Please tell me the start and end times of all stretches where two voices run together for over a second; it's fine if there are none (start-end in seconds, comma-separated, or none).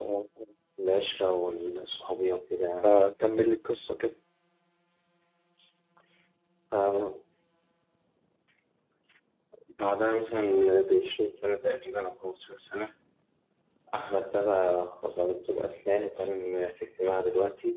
none